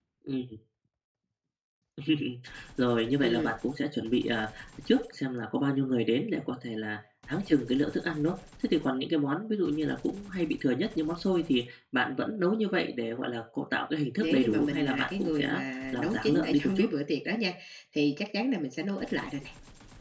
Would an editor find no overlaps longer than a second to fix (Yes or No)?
No